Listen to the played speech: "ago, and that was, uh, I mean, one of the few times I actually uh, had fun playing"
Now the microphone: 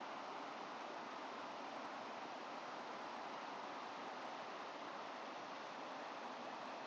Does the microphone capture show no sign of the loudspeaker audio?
Yes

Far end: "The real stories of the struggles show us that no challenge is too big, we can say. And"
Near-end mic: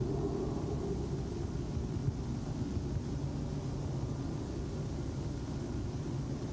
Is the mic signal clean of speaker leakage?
Yes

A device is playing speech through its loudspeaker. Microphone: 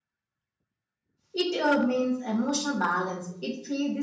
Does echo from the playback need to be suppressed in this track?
No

